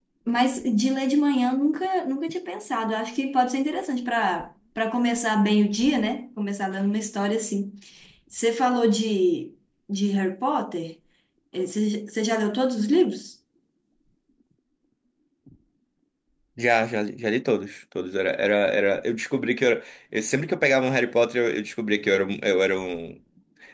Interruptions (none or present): none